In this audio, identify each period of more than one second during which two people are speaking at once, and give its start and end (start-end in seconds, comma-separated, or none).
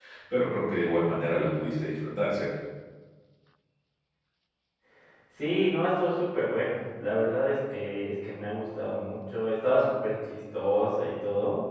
none